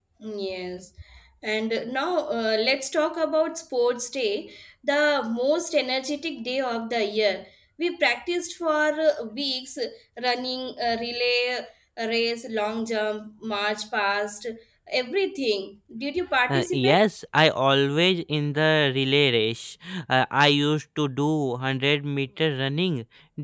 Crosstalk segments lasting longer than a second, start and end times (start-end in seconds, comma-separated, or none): none